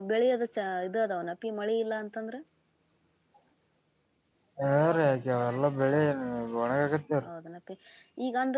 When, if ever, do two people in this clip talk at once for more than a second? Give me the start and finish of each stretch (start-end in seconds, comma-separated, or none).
none